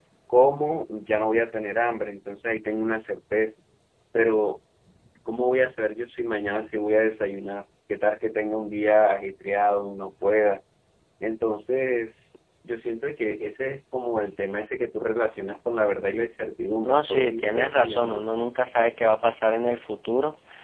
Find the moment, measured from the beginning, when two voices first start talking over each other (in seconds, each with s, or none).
16.8 s